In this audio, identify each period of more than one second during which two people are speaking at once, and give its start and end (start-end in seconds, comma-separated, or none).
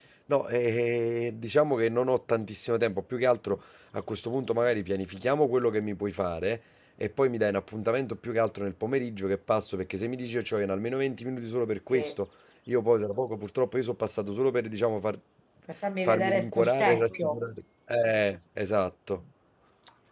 16.0-17.4